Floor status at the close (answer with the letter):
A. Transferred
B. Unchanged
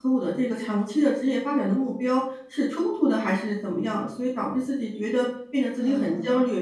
B